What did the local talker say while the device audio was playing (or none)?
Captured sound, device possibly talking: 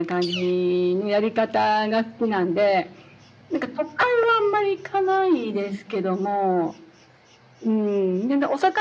none